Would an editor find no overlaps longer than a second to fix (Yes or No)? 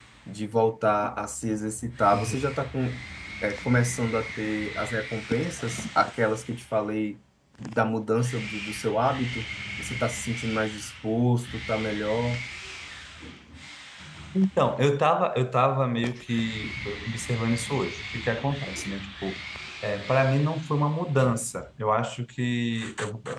Yes